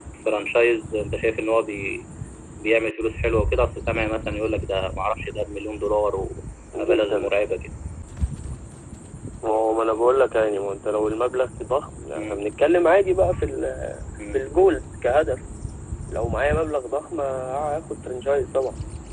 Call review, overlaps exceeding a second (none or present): none